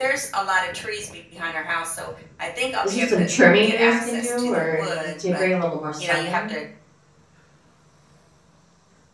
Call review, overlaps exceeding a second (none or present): present